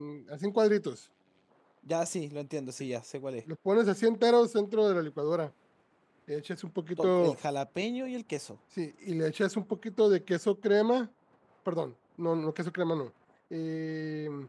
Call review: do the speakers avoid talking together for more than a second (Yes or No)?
Yes